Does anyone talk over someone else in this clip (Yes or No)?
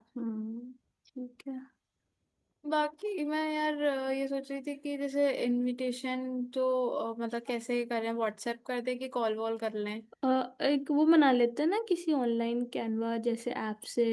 No